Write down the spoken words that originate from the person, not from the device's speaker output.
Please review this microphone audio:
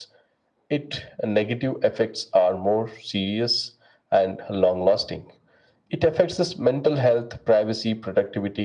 none

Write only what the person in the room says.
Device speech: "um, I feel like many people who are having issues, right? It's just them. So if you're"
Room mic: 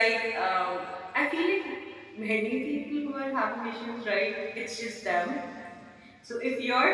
none

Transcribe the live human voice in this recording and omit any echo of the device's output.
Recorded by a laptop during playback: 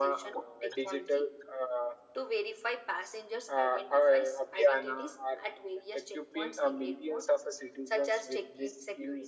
none

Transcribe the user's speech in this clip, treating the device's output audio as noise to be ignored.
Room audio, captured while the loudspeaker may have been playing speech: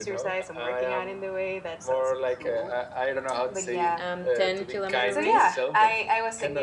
um 10 kilometer race

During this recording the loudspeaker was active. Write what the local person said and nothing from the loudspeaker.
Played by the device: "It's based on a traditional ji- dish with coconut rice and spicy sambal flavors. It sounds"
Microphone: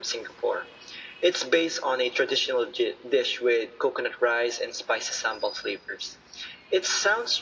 none

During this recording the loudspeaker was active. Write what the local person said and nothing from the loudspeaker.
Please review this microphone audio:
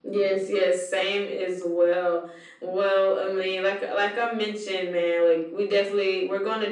none

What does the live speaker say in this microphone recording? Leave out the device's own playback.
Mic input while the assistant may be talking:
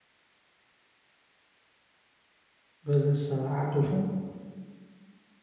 versus uh, Apple phone?

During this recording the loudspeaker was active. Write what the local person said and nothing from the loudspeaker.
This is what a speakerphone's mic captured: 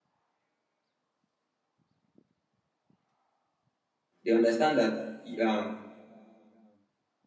They understand that um

